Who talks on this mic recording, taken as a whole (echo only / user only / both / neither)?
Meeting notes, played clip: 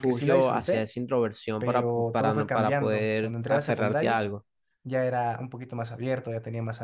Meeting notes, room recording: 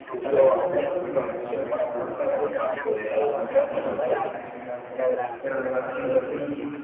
both